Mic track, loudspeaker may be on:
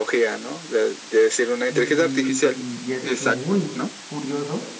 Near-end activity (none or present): present